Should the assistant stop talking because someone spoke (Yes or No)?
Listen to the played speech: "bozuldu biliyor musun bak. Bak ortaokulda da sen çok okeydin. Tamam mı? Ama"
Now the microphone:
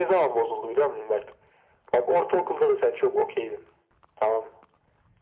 No